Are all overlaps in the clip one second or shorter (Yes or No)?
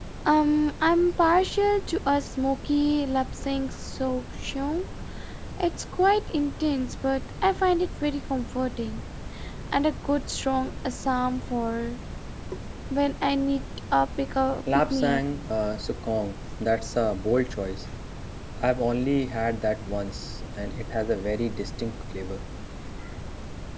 Yes